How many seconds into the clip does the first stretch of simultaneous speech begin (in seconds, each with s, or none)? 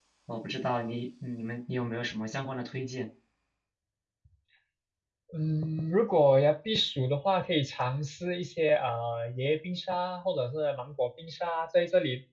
none